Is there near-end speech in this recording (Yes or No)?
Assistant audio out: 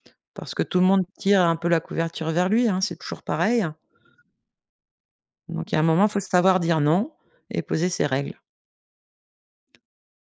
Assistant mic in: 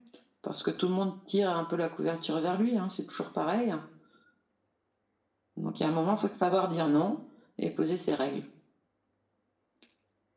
No